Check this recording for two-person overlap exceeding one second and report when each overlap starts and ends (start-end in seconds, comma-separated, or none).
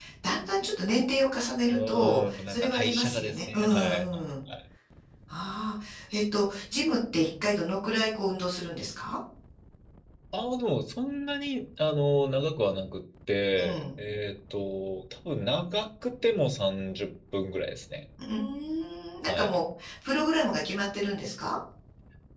1.7-4.0